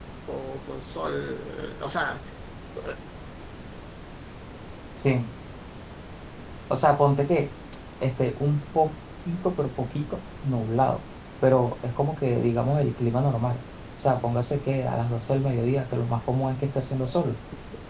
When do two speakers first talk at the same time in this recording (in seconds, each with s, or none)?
none